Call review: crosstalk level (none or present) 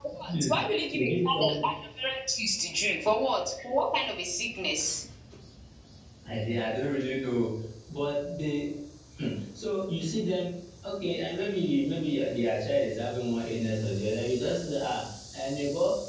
present